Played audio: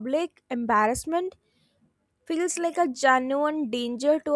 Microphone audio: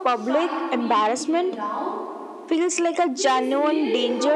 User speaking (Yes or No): Yes